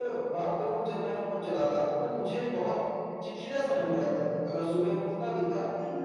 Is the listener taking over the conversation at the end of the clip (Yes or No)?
No